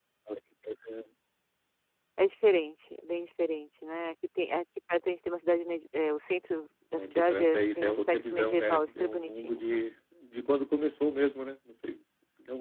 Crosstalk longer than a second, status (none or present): present